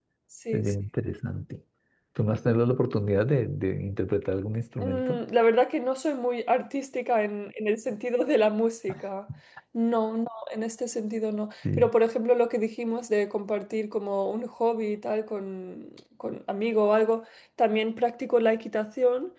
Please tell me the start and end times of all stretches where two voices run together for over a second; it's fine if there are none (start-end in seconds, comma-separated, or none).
none